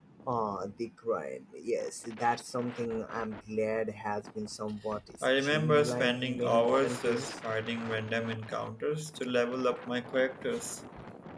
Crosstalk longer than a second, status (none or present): present